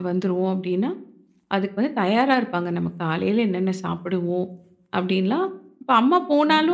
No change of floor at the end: Yes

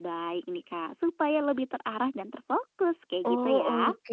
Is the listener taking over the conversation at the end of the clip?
Yes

